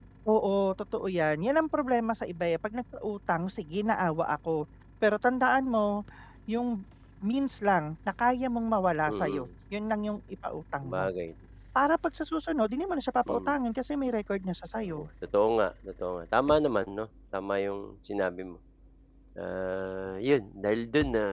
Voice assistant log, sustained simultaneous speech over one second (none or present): none